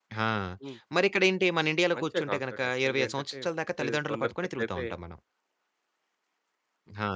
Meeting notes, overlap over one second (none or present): present